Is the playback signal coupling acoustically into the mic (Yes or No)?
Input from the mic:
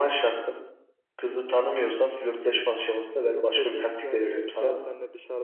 Yes